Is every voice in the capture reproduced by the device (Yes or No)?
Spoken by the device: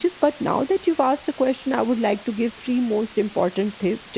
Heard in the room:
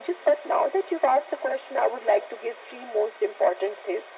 Yes